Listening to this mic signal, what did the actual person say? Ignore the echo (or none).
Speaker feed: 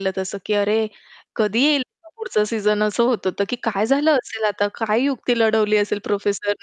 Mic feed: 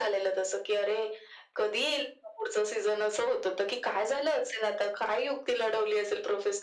none